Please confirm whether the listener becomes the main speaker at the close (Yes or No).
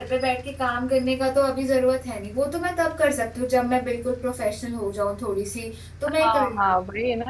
Yes